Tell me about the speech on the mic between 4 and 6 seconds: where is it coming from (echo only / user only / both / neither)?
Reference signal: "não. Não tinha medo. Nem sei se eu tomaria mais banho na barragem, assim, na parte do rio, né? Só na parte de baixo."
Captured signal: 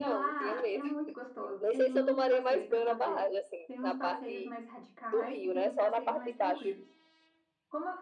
both